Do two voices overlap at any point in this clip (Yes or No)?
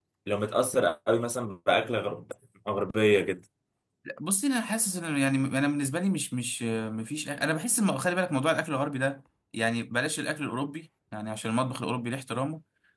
No